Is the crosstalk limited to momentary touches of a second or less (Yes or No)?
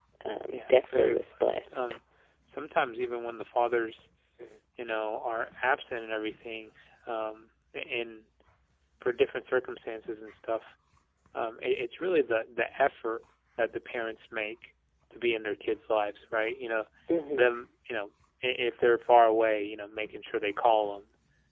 No